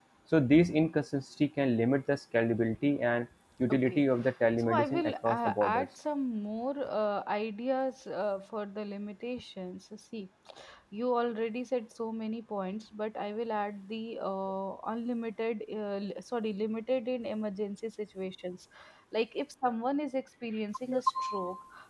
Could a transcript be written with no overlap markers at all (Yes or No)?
No